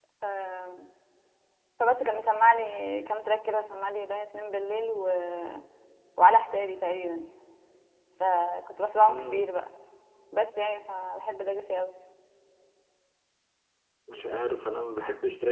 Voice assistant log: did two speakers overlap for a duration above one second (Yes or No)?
No